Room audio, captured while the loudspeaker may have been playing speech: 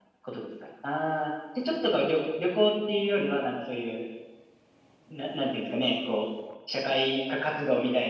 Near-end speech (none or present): none